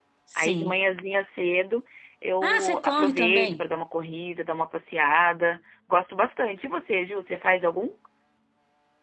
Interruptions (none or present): present